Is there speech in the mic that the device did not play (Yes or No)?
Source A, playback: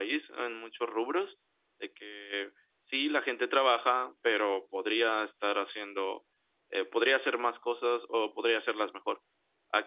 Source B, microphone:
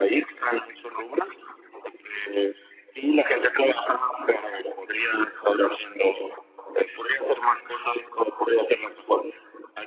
No